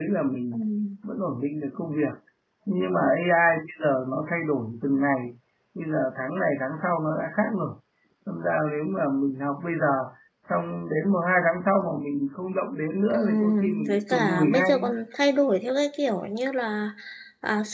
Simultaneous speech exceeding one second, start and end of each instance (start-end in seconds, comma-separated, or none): 13.1-14.8